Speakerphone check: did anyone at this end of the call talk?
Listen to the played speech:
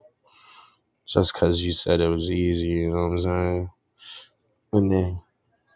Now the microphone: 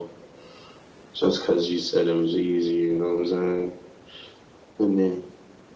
No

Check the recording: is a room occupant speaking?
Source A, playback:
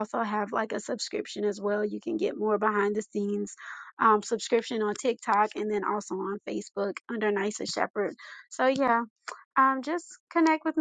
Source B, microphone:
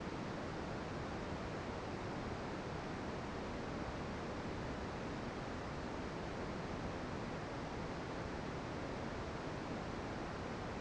No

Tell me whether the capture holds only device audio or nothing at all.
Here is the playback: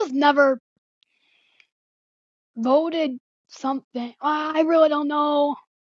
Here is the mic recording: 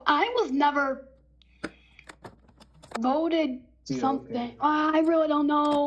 No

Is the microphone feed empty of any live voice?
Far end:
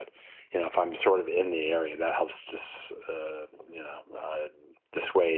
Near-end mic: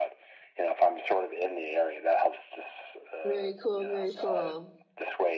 No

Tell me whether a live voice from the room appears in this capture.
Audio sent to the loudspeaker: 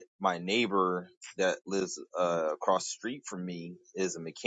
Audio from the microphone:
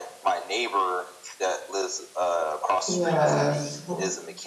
Yes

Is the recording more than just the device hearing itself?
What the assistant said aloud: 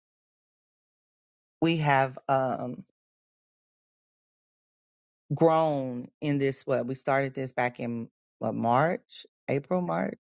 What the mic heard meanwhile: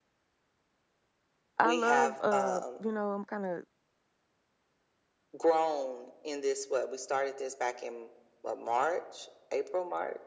Yes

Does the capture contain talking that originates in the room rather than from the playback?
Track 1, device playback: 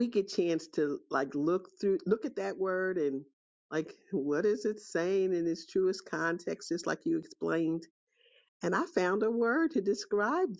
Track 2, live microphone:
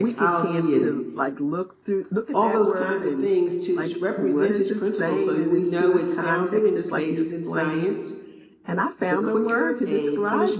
Yes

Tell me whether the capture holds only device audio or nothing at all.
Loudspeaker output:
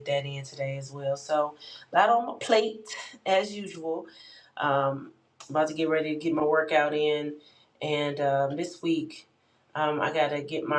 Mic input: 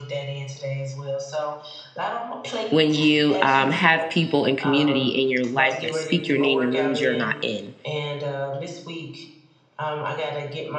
No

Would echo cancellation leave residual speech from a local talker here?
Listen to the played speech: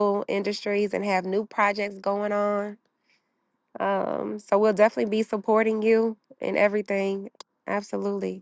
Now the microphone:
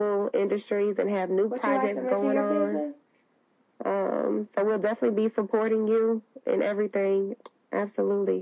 Yes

